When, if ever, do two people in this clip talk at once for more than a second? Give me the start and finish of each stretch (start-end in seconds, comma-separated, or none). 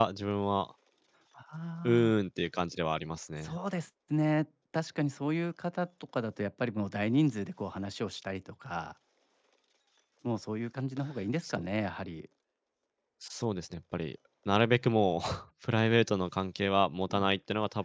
none